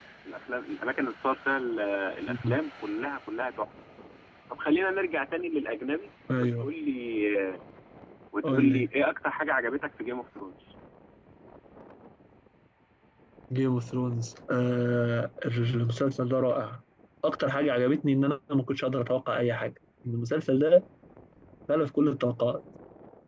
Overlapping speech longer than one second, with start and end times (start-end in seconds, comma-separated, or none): none